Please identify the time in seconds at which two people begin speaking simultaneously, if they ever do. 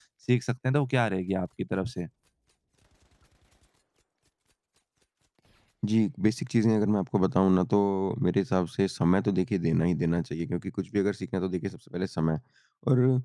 none

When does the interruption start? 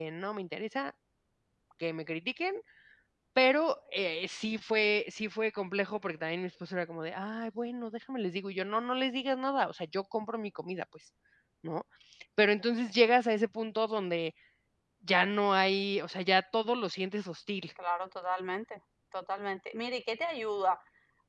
none

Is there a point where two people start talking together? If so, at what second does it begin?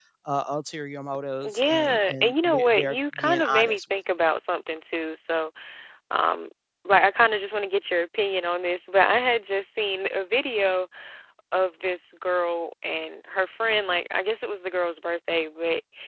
1.4 s

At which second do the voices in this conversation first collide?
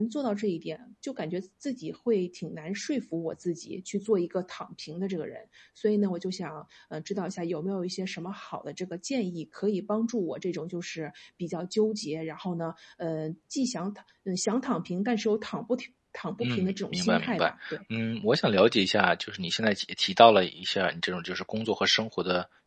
16.4 s

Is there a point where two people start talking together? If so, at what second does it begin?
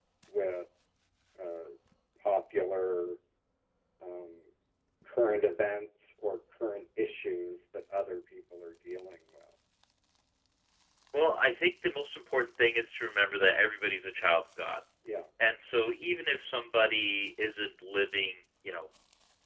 none

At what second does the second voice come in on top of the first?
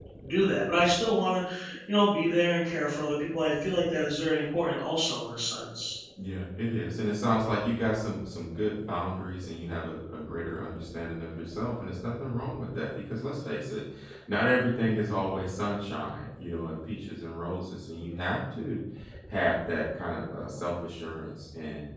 none

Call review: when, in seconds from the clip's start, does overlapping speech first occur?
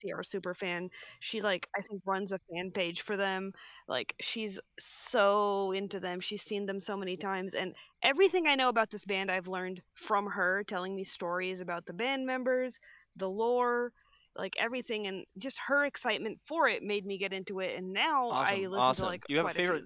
18.3 s

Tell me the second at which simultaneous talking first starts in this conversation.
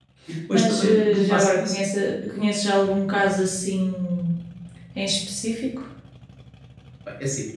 0.5 s

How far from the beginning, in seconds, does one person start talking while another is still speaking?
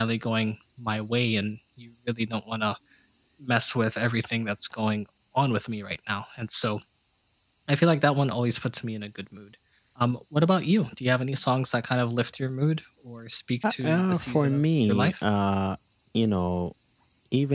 13.6 s

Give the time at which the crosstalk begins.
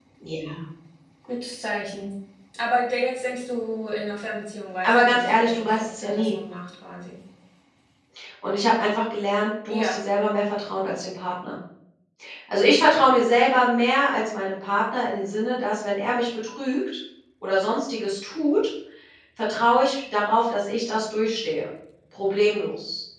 4.8 s

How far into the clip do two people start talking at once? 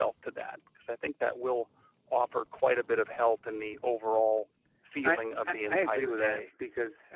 5.0 s

